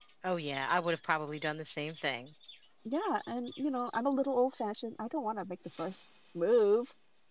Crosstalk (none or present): none